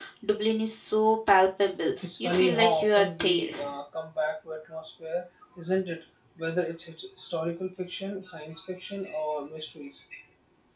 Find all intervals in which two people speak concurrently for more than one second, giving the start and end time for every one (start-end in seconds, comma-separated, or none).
2.0-3.5